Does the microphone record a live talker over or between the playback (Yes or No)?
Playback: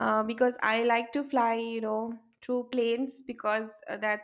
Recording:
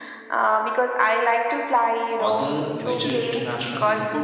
Yes